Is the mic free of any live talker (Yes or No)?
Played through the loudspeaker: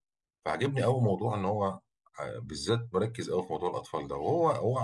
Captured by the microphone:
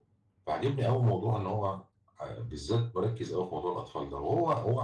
Yes